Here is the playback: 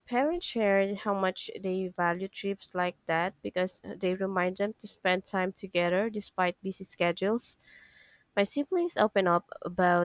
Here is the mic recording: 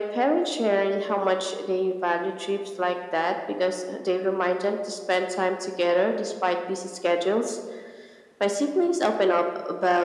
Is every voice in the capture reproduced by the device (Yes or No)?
Yes